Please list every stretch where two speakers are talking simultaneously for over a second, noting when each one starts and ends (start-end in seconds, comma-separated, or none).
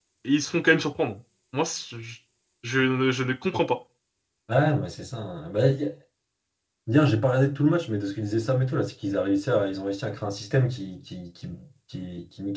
none